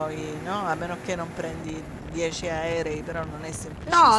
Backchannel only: No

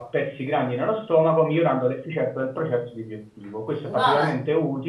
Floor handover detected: No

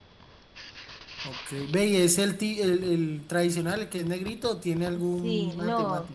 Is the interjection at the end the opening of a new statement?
Yes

